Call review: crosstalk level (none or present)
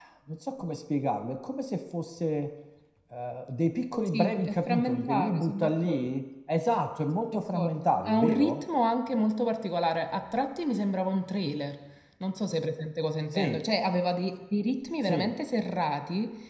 present